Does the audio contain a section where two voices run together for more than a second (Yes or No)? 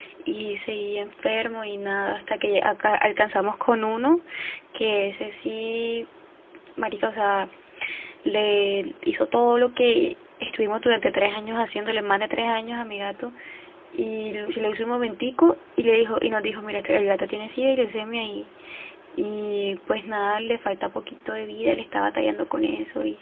No